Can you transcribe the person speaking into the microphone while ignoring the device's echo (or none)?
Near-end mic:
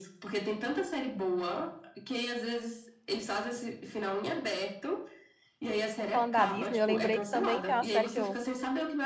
e falando da Disney, eu lembrei que também tem uma série que, eu,